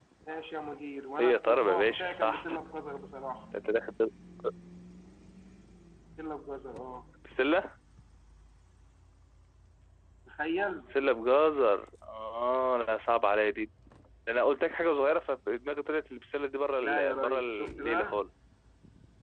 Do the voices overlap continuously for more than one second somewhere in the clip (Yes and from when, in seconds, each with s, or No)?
Yes, from 1.2 s